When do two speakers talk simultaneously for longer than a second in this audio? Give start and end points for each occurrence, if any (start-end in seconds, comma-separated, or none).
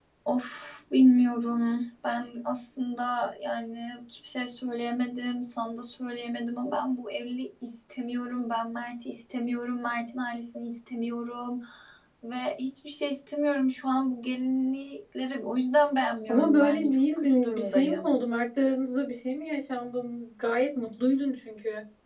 16.3-18.2